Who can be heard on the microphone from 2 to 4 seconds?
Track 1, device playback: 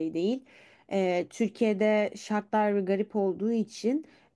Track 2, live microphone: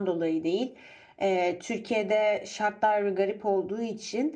echo only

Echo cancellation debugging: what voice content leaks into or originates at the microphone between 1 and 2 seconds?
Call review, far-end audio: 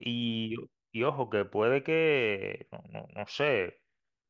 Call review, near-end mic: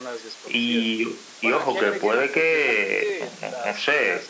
both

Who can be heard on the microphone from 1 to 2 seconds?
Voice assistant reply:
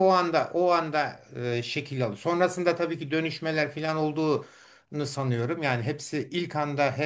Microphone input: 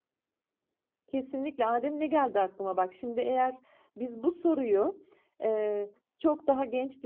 user only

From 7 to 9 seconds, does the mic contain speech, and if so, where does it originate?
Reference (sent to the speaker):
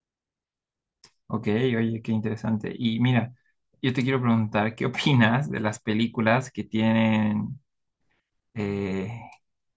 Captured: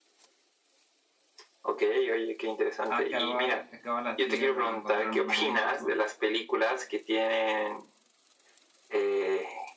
echo only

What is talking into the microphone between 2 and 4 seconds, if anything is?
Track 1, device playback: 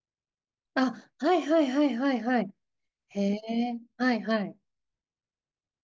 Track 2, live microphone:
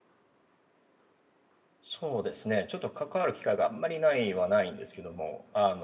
user only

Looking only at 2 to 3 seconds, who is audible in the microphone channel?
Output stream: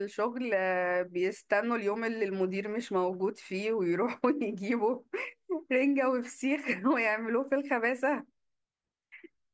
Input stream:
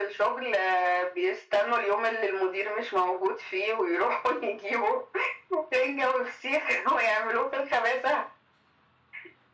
echo only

